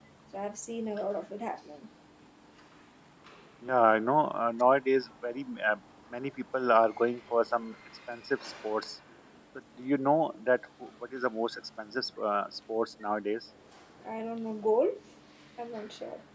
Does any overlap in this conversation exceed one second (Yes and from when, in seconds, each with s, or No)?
No